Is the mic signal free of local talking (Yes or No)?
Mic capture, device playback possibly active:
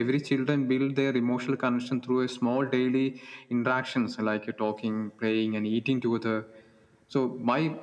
Yes